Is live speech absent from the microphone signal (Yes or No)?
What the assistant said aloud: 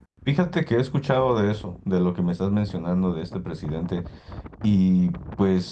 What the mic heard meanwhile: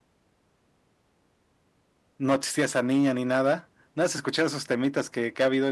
No